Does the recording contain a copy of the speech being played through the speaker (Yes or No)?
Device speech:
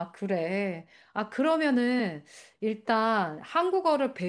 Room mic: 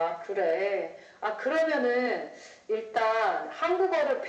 Yes